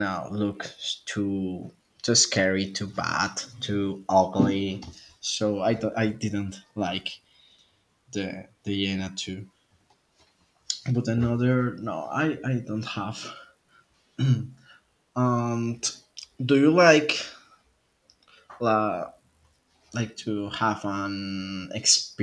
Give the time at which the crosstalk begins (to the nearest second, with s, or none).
none